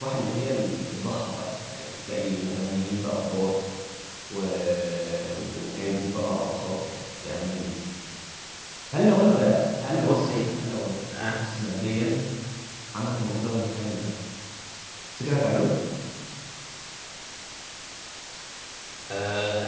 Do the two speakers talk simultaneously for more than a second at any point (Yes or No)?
No